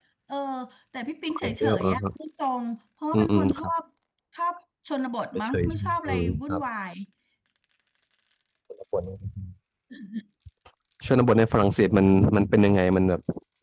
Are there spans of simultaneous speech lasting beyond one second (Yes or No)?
Yes